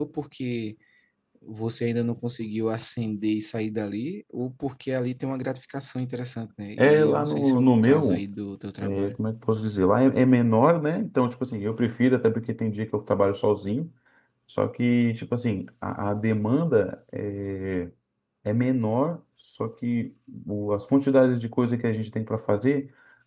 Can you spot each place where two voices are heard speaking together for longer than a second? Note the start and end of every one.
6.8-8.2

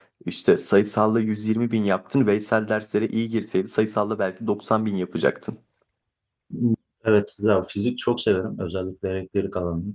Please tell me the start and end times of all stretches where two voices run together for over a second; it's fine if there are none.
none

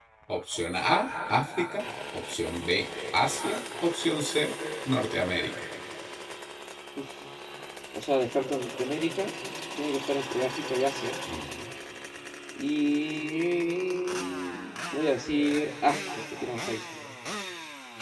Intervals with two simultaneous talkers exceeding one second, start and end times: none

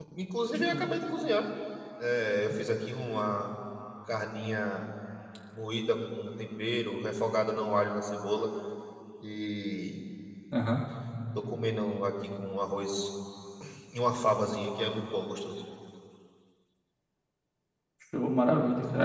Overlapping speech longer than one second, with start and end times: none

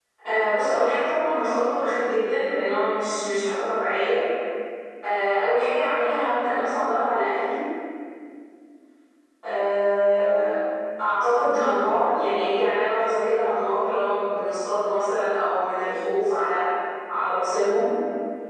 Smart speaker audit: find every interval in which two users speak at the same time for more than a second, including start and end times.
none

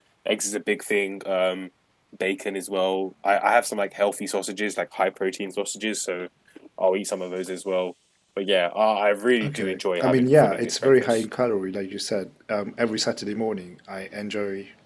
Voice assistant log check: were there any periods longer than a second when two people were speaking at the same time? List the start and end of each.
9.4-11.2

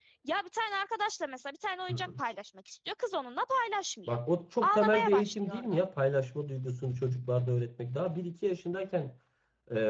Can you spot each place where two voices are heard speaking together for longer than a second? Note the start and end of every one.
4.6-5.8

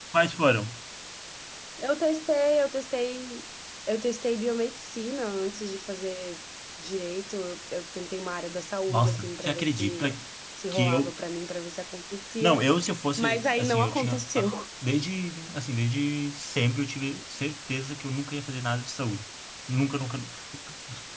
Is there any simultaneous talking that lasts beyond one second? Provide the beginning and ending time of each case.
8.9-10.1, 13.2-14.5

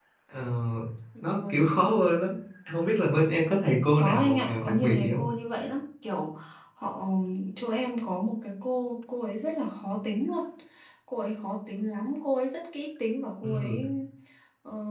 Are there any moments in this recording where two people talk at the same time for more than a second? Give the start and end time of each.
4.0-5.2

